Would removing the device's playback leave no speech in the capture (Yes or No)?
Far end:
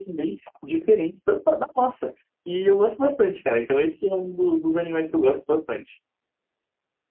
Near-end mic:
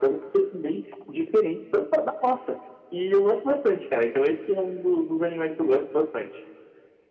Yes